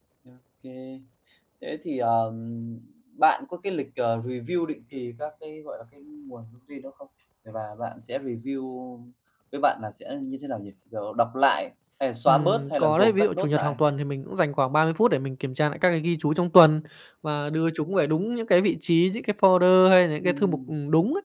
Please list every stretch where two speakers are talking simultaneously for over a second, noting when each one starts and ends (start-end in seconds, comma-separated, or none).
12.3-13.8